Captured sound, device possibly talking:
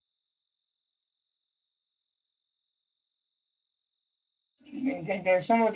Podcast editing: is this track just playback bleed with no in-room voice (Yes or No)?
No